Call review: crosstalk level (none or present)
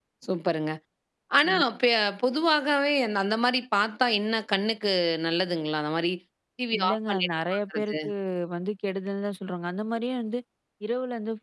present